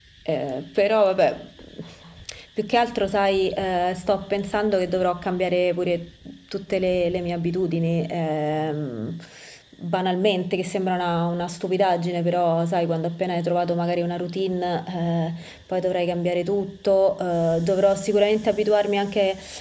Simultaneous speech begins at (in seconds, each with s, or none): none